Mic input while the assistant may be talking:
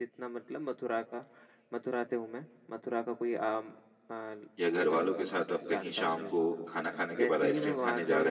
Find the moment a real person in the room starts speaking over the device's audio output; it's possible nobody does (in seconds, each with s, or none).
4.6 s